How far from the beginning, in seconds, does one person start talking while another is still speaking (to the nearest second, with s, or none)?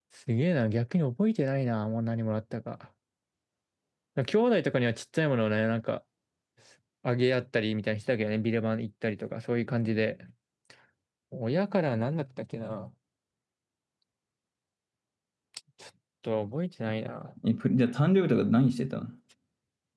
none